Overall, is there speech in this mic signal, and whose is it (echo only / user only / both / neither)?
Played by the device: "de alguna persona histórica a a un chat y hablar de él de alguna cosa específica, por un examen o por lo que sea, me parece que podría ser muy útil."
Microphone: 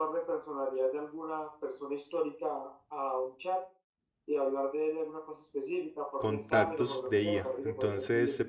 both